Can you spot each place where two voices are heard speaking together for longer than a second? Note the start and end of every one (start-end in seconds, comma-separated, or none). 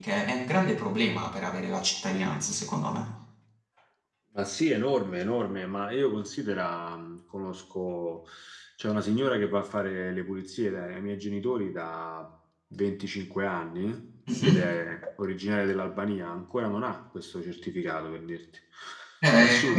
none